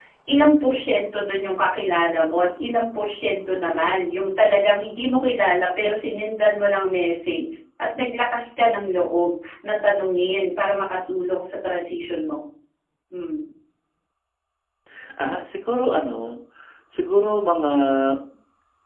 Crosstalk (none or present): none